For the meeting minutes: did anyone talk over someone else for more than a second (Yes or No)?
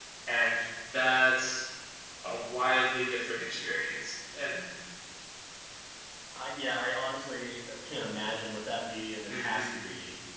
No